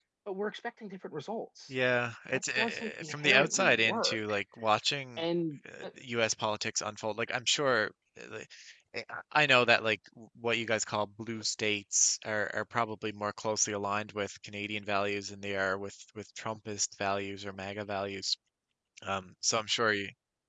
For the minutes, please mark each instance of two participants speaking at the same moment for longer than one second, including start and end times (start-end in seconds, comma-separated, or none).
2.3-4.4